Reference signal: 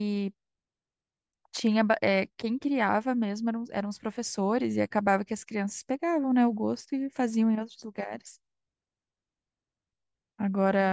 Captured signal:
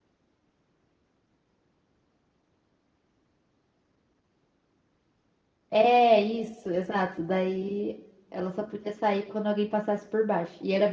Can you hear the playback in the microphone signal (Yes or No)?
No